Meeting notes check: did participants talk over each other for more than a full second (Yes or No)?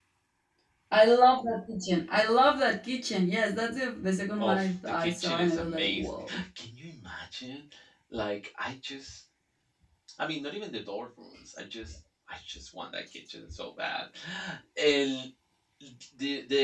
Yes